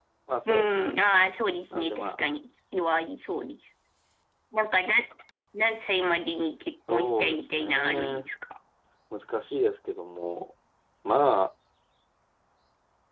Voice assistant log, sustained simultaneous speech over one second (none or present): present